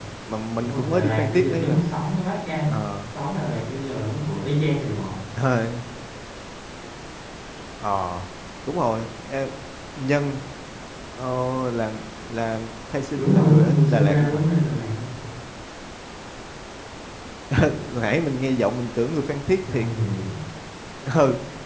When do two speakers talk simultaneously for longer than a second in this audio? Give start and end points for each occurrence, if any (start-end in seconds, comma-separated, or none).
0.6-1.8, 13.2-14.4